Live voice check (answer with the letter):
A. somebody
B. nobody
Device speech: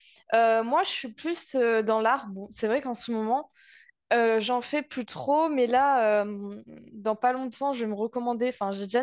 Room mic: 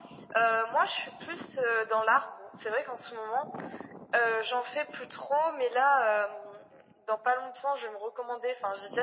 B